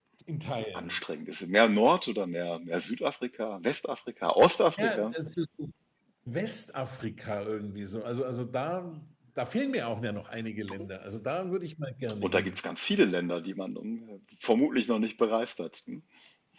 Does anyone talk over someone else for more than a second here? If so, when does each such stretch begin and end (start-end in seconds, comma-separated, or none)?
none